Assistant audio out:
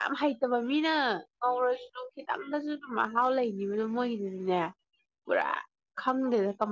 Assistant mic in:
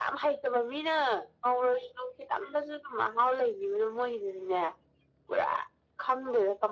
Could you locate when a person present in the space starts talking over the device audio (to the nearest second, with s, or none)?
none